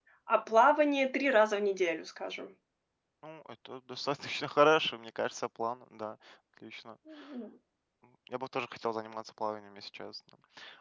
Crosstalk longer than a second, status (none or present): none